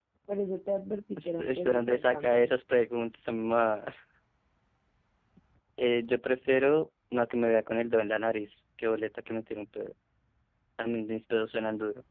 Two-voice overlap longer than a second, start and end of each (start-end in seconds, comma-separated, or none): 1.2-2.5